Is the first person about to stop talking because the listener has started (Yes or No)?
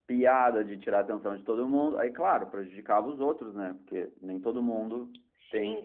Yes